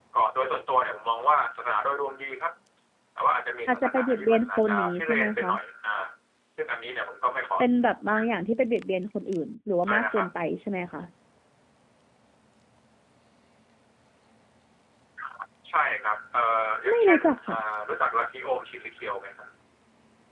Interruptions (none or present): present